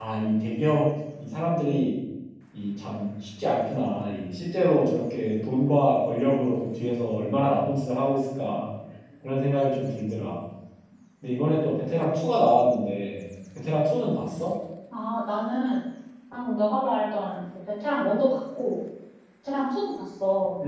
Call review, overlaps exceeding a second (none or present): none